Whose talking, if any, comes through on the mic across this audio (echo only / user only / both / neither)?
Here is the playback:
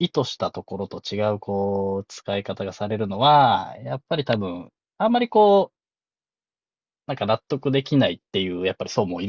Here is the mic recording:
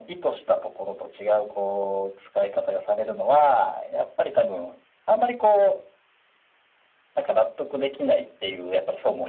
echo only